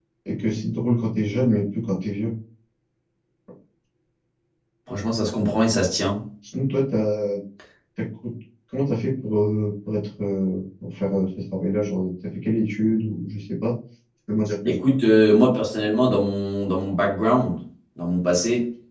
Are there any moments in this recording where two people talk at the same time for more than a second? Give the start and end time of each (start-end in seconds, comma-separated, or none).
none